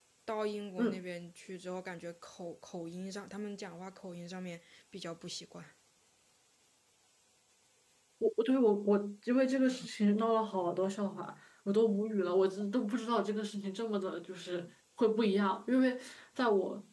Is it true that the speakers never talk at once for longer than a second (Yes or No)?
Yes